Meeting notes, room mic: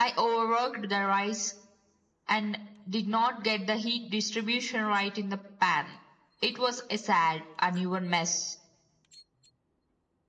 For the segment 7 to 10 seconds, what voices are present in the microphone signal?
echo only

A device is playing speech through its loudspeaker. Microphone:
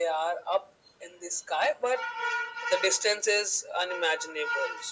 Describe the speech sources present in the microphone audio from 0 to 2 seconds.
echo only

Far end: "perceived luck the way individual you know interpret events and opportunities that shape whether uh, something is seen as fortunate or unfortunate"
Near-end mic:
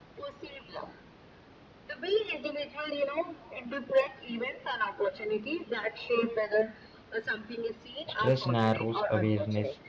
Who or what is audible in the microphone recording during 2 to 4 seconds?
echo only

